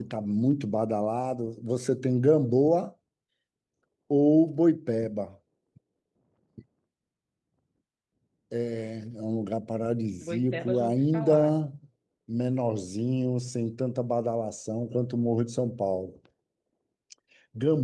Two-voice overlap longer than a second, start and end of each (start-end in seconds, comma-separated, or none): 10.2-11.6